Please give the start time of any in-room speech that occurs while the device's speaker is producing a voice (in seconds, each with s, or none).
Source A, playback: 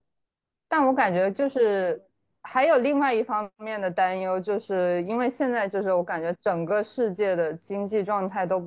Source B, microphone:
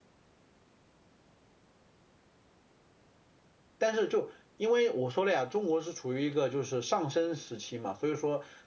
3.8 s